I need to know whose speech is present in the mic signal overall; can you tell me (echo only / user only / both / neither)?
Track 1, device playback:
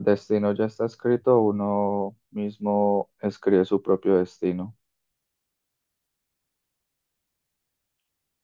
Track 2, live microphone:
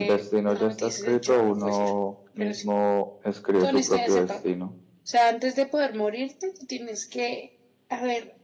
both